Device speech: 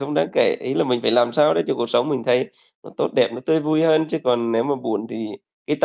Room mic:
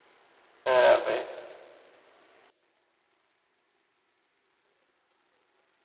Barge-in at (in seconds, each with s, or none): 0.6 s